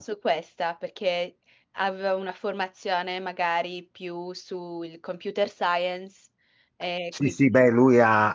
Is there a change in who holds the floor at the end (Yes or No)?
Yes